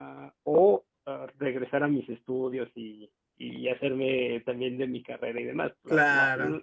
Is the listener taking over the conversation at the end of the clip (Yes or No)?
No